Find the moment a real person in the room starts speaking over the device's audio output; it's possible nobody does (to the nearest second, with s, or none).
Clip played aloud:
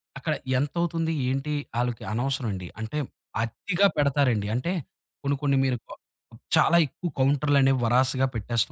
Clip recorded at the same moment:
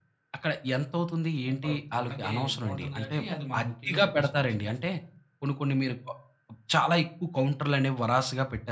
1 s